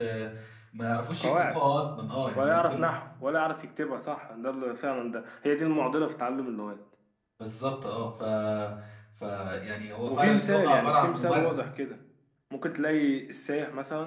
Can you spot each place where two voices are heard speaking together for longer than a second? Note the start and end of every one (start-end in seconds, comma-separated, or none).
10.1-11.5